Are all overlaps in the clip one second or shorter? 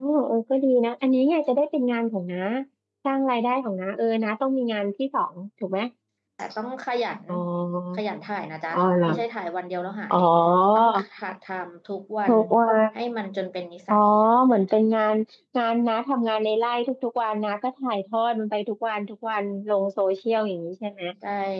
Yes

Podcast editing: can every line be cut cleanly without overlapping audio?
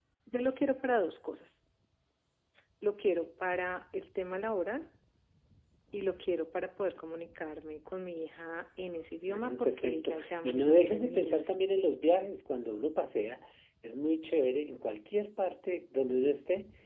No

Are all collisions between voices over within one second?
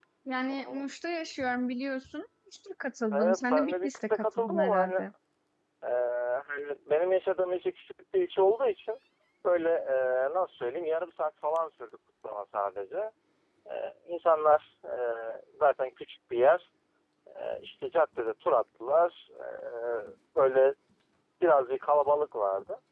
No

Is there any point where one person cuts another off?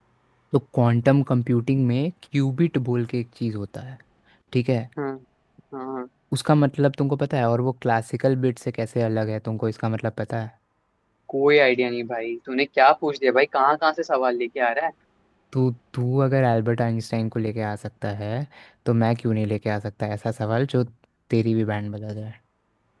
No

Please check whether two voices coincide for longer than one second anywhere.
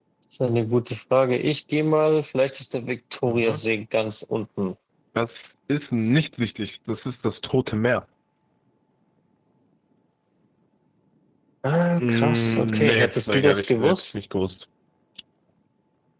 Yes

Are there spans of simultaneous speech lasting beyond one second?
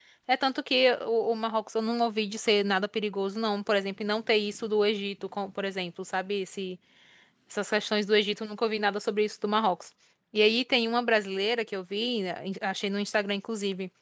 No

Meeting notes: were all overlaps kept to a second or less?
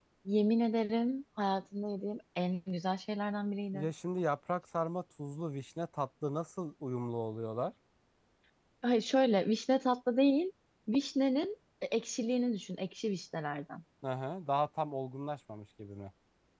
Yes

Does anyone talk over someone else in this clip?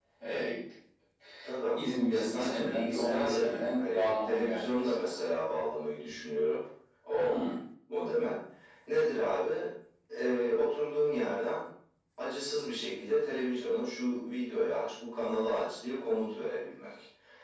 Yes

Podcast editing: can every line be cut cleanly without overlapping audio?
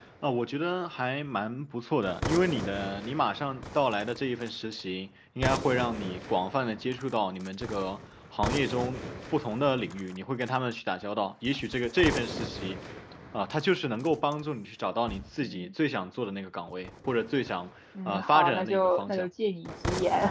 No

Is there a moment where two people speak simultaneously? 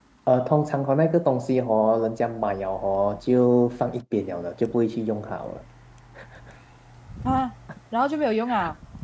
No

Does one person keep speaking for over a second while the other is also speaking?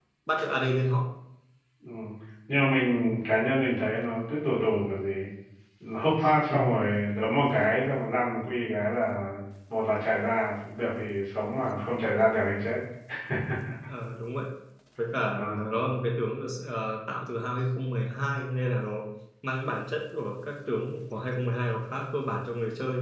No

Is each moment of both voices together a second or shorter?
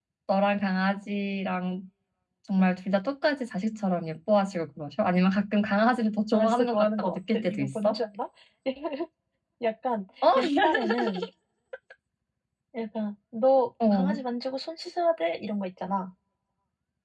No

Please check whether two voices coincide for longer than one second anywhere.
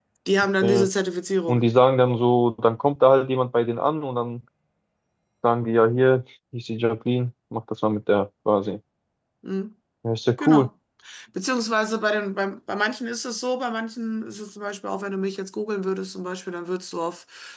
No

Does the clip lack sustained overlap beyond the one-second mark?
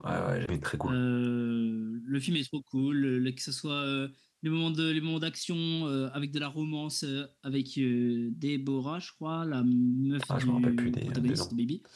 No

